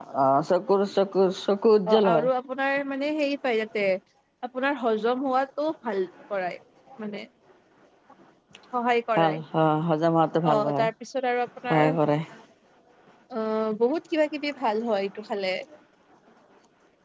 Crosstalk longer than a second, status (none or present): none